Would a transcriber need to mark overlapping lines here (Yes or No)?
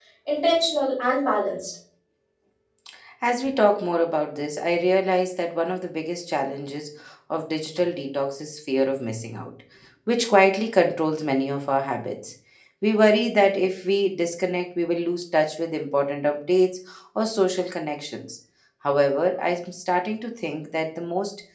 No